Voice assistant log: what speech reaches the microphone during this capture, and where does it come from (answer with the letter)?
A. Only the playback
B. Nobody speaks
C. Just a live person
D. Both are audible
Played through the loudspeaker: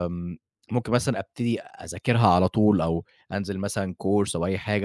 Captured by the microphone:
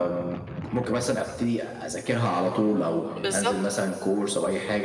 D